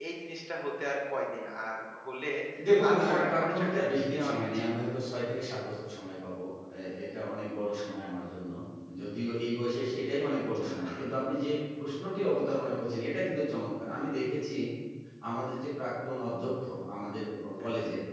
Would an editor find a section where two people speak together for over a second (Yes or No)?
Yes